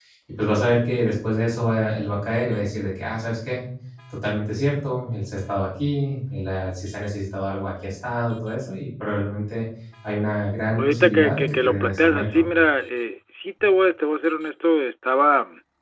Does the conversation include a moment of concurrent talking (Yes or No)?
Yes